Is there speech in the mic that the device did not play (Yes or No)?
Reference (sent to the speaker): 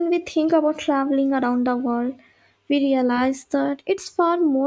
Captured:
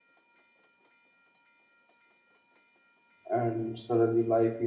Yes